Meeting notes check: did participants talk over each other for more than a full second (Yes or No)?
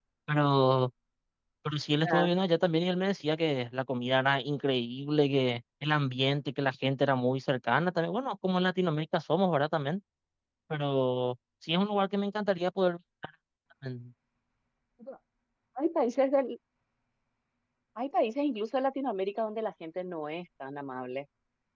No